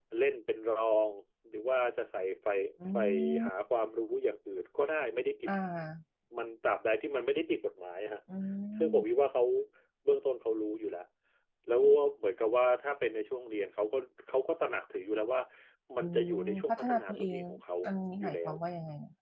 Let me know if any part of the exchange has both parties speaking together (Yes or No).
Yes